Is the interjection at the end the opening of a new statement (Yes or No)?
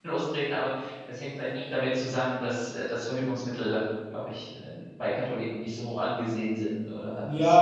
Yes